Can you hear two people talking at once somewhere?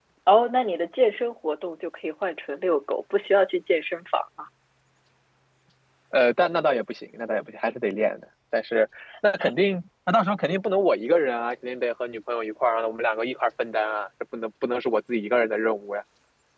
No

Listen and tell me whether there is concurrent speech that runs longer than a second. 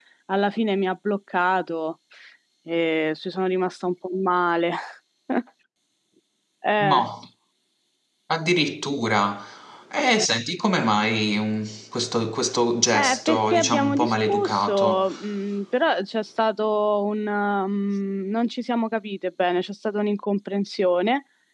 Yes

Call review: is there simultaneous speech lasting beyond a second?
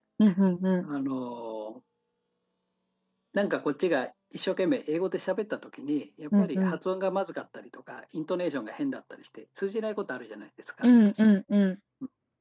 No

